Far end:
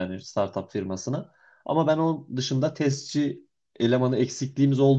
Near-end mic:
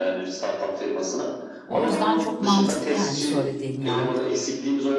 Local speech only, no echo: O yüzden çok mantıklı yani söylediğin ya.

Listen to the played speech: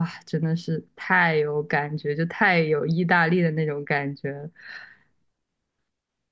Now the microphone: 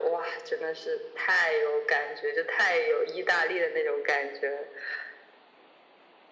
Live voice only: none

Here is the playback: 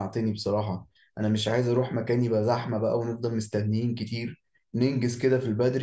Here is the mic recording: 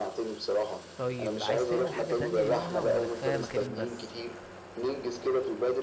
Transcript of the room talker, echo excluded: طيب عايز تعمل حاجة تانية يومها ولا كفاية مكانين بس

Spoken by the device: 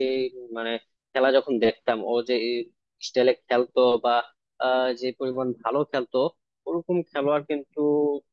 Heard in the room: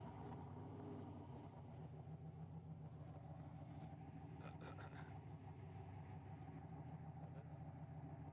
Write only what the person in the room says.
none

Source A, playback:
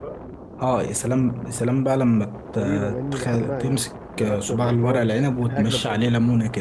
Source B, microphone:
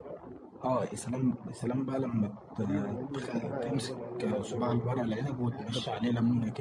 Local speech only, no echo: لا لا كده بقى لازم اجربه

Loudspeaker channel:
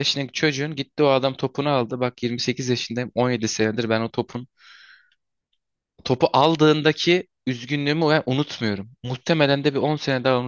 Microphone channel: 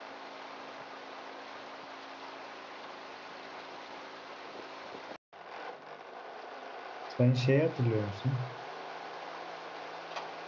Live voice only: Sen şeyi hatırlıyor musun?

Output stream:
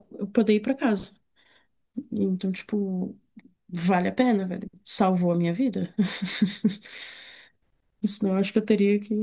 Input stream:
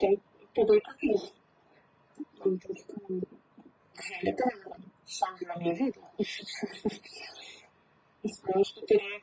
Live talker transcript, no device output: none

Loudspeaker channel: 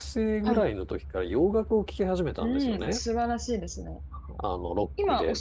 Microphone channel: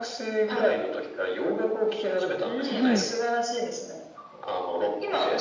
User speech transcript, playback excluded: はい。

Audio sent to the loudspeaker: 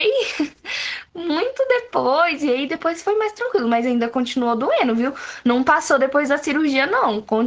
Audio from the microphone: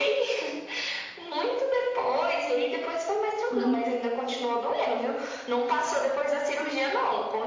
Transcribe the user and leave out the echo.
Uhum.

